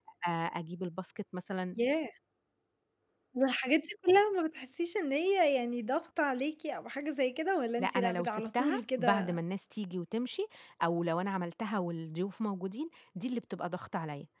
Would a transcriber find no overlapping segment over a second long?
No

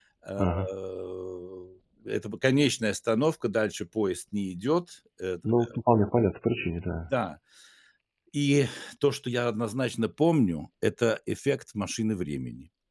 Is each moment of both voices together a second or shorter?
Yes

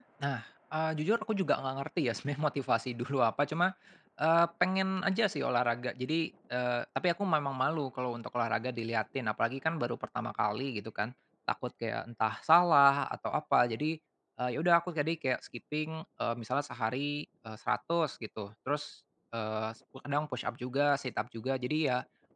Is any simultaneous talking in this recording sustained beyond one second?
No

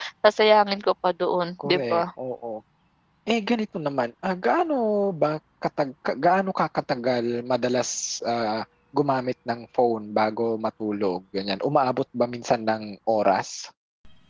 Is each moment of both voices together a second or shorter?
Yes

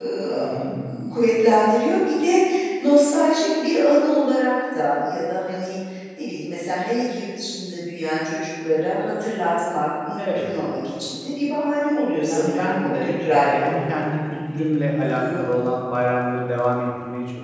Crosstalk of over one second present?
Yes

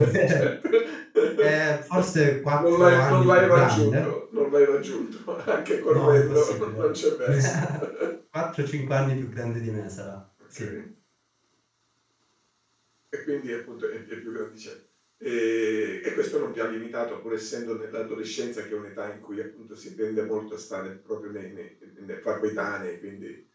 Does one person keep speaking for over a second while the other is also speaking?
Yes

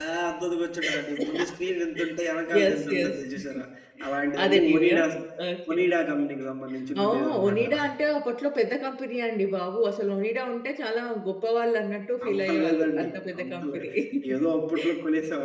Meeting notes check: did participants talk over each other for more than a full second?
Yes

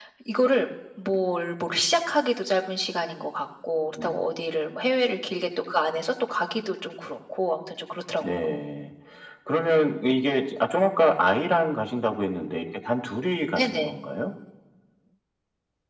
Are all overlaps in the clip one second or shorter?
Yes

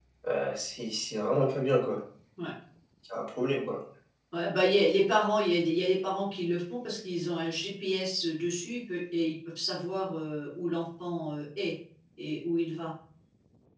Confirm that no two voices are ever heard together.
Yes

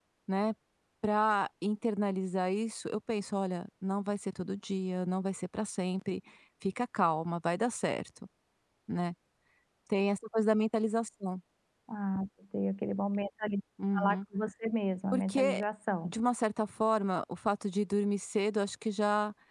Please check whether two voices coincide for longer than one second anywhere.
No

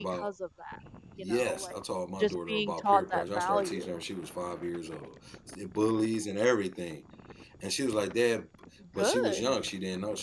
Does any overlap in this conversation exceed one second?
Yes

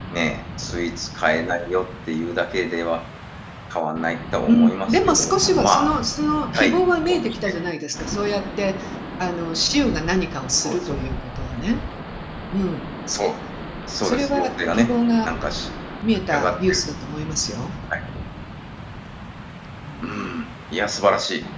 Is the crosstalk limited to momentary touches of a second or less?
No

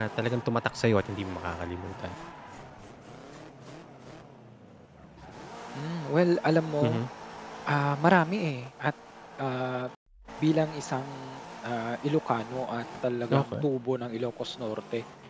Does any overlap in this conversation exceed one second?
No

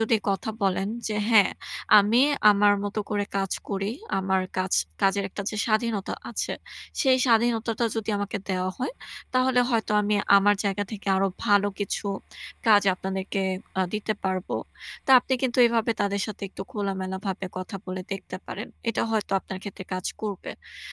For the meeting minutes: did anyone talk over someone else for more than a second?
No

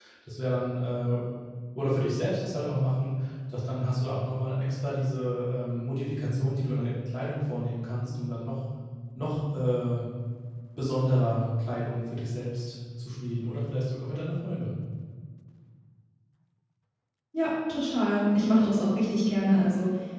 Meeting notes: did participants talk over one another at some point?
No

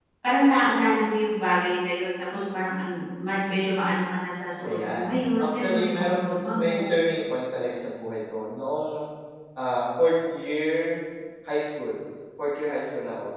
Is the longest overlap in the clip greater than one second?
Yes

